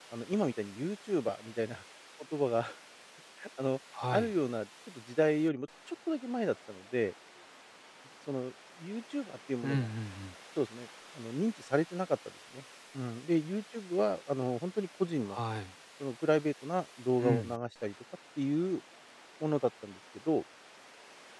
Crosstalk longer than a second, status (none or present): none